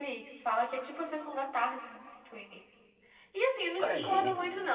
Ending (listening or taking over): listening